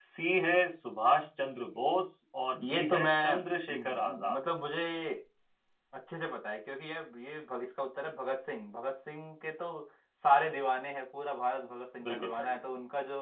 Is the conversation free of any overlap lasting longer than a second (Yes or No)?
No